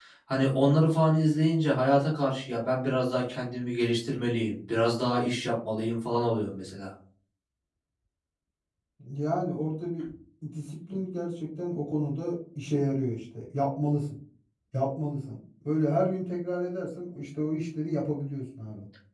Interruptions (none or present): none